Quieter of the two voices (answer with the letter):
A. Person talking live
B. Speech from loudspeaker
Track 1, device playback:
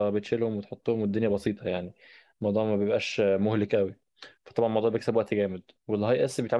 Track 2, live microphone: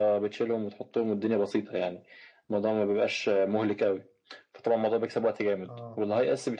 A